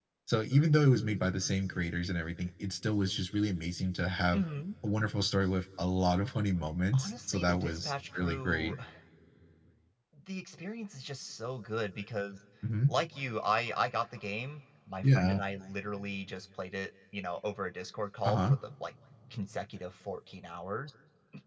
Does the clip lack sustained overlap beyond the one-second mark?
No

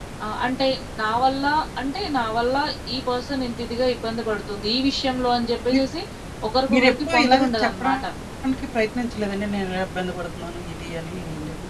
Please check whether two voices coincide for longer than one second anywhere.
Yes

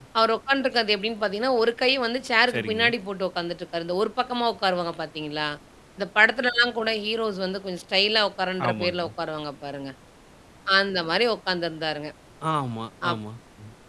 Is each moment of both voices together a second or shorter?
Yes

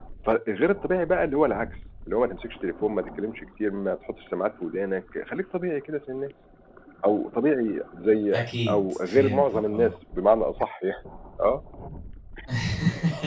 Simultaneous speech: Yes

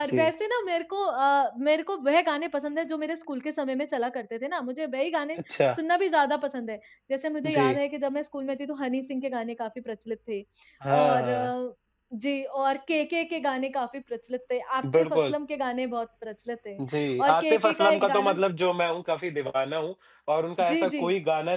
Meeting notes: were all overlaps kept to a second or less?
No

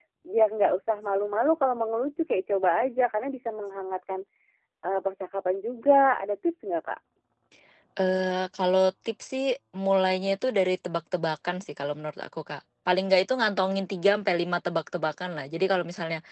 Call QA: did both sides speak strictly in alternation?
Yes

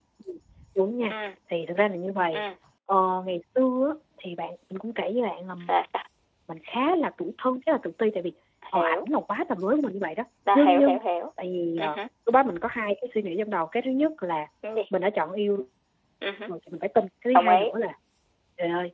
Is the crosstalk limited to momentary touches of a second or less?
Yes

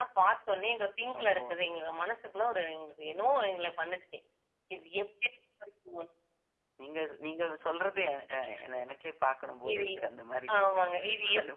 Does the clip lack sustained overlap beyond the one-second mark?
Yes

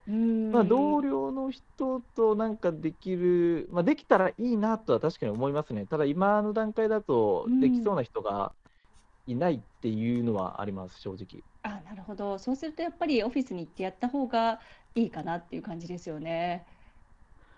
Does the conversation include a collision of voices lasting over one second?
No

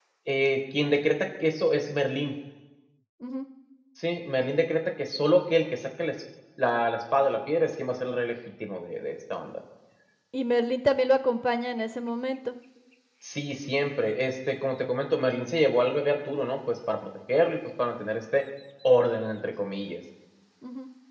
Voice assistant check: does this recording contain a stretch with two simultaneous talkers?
No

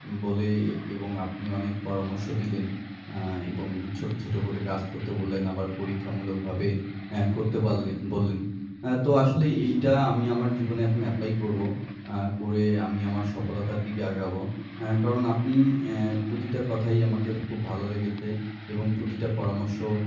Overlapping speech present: No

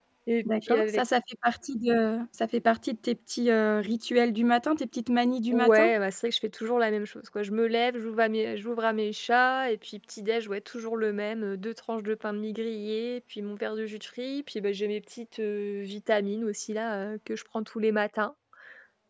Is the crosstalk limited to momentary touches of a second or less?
Yes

